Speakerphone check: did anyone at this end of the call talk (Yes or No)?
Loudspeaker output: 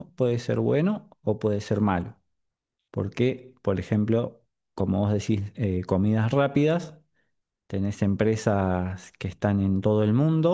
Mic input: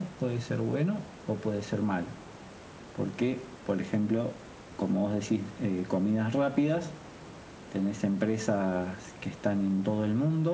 No